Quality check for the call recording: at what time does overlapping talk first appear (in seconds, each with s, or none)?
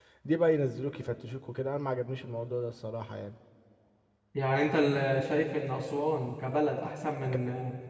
none